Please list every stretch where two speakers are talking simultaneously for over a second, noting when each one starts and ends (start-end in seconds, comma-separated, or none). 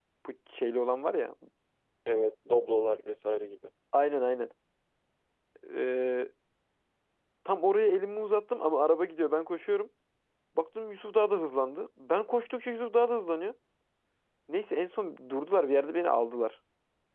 none